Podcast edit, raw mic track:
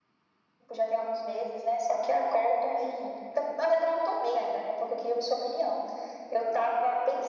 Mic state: echo only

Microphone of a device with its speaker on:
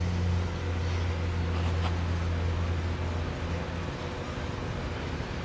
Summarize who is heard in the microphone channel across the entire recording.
neither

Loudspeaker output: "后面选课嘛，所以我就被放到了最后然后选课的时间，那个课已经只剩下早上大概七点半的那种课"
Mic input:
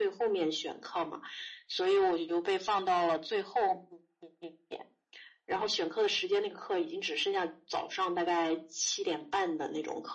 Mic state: echo only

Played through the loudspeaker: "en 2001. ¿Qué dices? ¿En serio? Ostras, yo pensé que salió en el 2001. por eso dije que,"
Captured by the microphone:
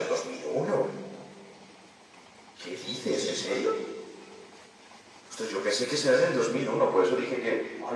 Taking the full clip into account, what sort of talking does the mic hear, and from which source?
both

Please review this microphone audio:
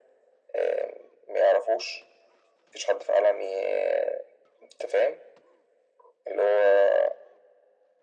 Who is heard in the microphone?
echo only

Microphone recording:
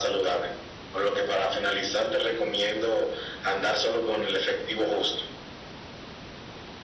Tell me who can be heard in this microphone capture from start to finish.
echo only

